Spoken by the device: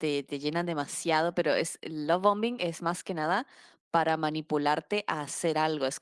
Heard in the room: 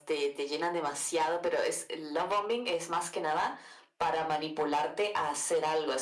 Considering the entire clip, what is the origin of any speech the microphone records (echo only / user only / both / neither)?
echo only